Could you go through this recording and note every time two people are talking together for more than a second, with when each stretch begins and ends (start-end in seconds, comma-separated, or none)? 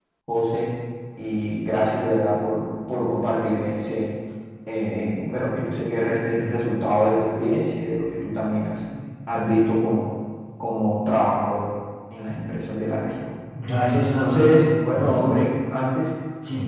14.2-15.4